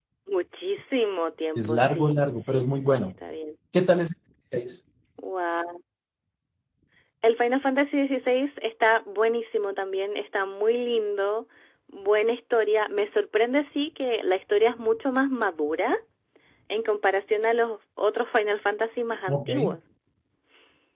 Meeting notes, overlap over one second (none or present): present